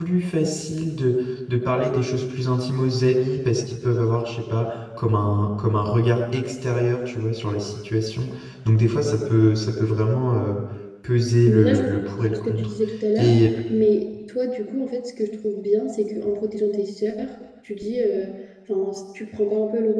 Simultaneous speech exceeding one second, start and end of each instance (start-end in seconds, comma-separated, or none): 11.4-12.7